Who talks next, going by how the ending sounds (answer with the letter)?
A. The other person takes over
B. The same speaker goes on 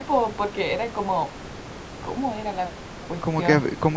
A